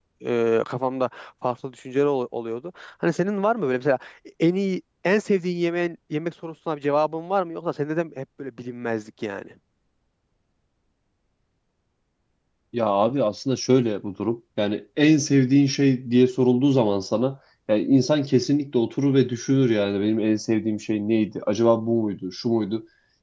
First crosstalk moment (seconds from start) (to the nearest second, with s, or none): none